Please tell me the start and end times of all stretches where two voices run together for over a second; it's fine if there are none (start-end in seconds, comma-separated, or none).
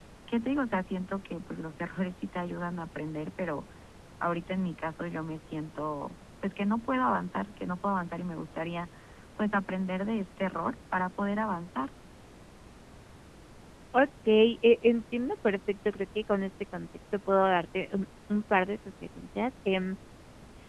none